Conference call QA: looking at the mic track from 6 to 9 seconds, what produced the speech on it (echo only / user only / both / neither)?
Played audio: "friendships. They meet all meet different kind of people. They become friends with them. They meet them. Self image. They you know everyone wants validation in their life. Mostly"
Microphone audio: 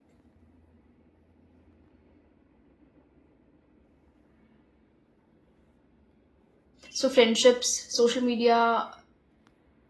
user only